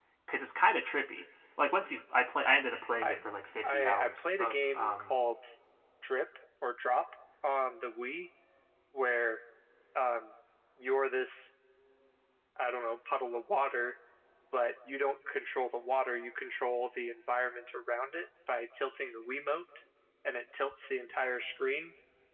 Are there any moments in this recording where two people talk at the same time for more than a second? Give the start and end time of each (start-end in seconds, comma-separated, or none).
3.6-5.2